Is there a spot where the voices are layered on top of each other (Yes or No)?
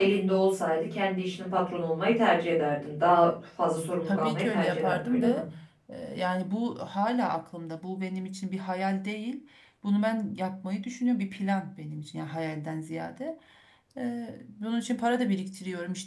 Yes